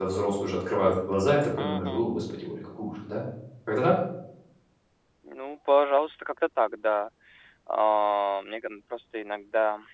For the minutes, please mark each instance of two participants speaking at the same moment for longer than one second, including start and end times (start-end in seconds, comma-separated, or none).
none